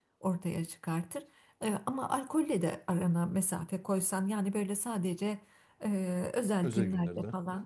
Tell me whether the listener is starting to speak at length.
No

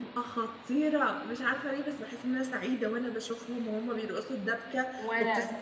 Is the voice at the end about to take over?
No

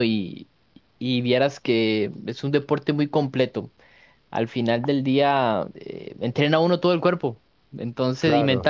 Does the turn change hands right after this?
No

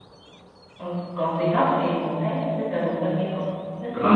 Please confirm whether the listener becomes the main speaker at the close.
Yes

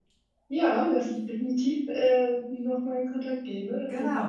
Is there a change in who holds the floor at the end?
Yes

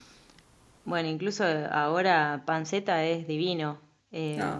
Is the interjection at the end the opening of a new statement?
No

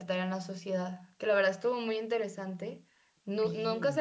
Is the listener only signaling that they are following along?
Yes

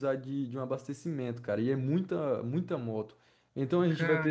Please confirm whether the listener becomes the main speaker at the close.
No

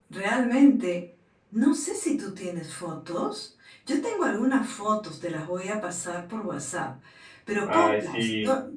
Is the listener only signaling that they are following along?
Yes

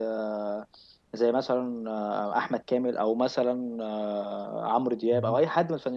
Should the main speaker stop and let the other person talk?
No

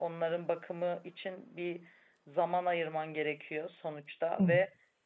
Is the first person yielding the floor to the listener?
No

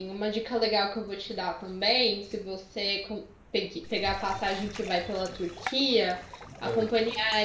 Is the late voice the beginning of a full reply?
No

